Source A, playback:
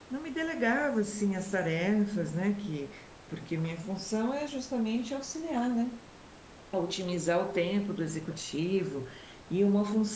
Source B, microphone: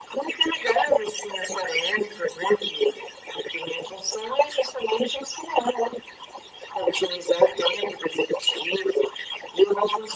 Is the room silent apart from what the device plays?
Yes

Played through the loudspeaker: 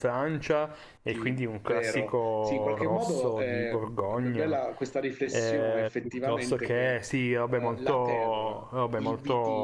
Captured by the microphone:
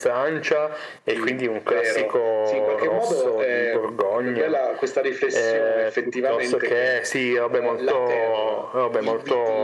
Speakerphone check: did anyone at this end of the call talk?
No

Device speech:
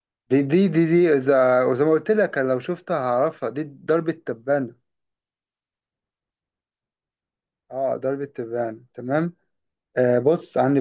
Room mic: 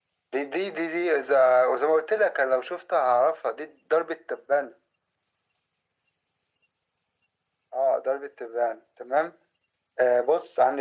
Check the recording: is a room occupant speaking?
No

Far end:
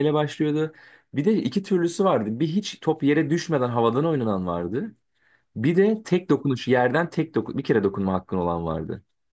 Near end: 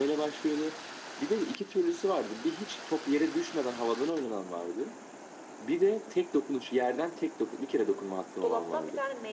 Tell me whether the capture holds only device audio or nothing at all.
No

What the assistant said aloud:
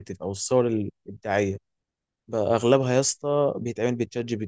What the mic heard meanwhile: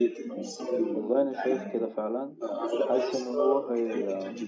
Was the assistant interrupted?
Yes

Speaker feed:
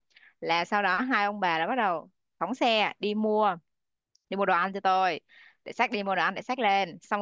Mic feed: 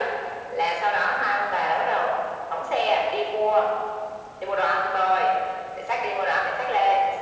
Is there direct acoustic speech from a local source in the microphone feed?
No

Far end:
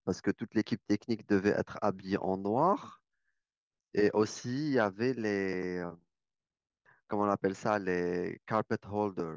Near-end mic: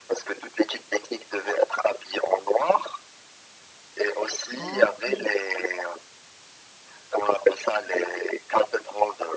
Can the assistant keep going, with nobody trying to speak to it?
No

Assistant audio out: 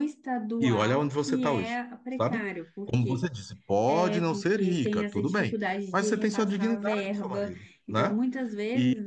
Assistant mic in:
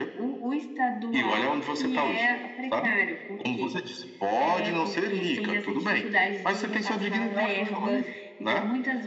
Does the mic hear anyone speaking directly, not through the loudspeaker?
Yes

